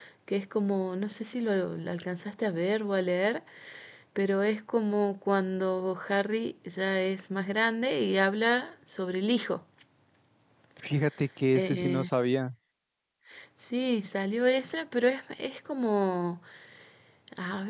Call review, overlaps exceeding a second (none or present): none